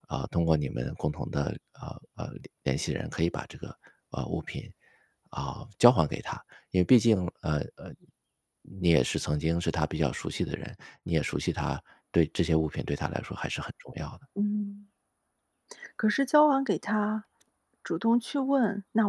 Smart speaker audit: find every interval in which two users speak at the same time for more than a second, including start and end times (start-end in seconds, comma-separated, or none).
none